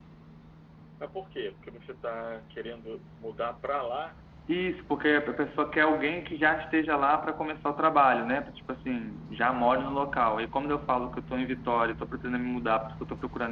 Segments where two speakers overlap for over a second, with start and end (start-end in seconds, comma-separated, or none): none